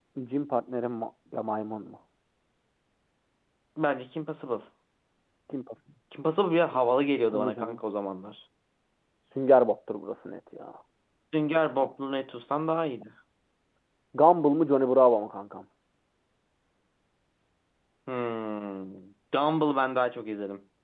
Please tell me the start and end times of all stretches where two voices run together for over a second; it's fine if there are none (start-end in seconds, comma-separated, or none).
none